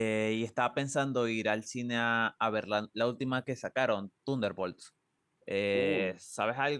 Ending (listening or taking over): listening